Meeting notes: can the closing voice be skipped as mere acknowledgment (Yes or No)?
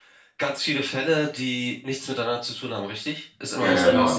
No